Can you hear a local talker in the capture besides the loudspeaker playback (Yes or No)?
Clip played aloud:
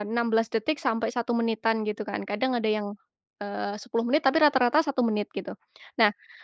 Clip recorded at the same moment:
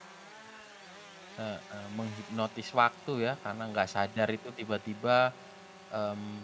Yes